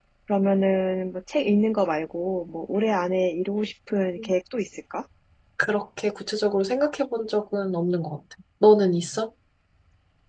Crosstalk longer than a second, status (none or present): none